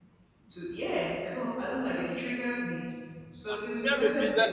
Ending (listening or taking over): taking over